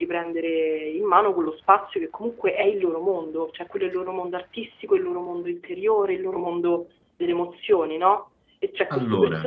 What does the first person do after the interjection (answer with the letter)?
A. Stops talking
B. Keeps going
B